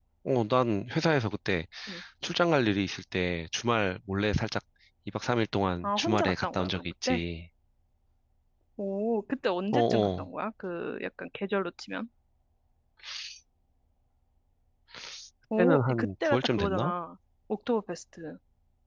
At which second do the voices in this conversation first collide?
5.8 s

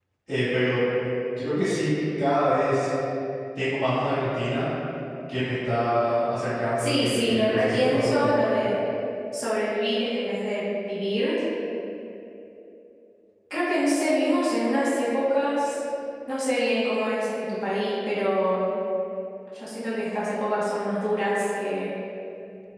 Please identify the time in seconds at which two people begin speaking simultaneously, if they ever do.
6.8 s

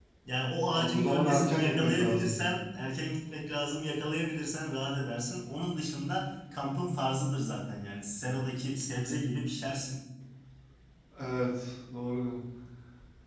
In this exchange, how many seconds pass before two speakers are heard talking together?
0.7 s

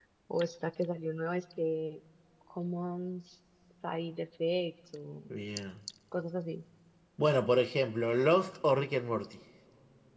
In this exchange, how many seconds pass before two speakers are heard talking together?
none

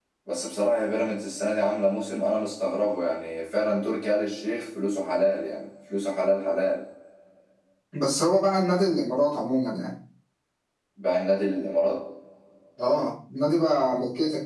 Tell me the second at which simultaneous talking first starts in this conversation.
none

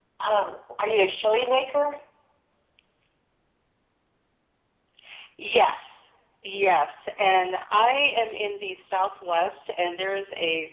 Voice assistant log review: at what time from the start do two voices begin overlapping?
none

